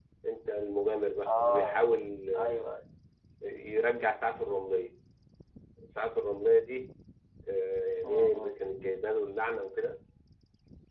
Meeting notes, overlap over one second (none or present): none